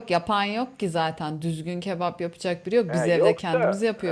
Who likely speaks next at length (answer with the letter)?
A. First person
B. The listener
B